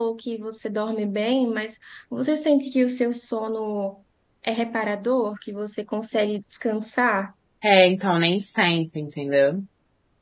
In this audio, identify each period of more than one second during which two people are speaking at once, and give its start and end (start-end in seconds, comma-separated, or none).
none